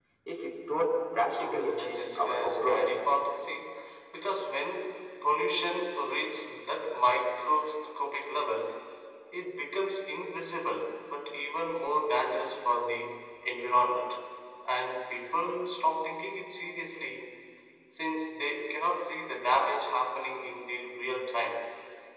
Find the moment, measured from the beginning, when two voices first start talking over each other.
1.4 s

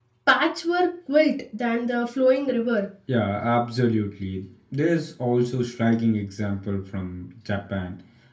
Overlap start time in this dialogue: none

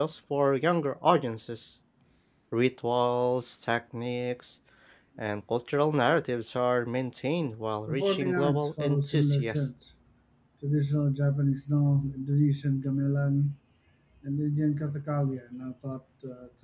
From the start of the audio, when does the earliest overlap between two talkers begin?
7.9 s

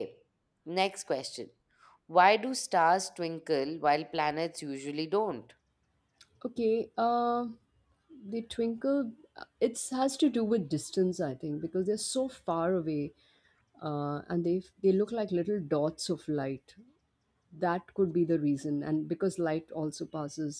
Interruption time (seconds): none

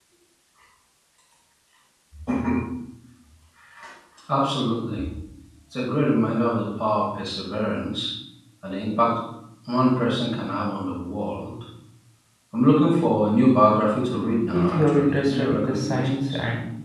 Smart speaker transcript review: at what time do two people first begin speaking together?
14.5 s

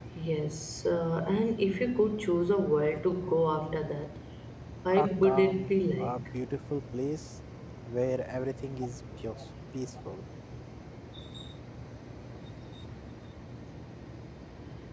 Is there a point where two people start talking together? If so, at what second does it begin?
5.0 s

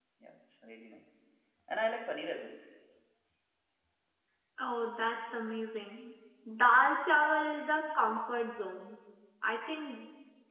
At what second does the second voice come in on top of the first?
none

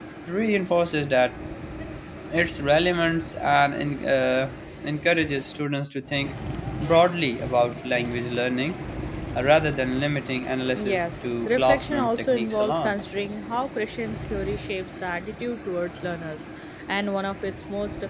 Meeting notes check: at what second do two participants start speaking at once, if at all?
10.7 s

